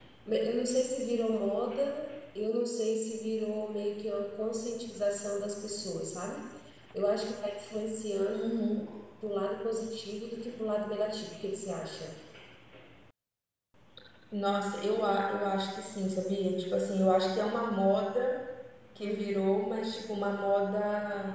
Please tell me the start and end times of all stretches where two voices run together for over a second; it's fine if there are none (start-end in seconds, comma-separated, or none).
none